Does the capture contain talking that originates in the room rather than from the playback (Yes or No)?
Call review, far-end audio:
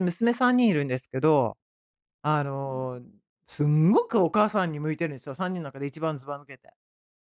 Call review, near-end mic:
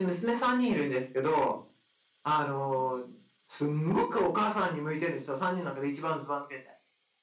No